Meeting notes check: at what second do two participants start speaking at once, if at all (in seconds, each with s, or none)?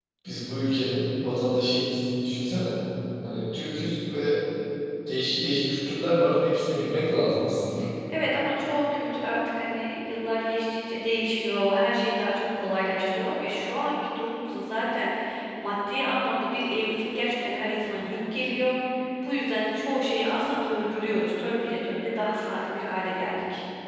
none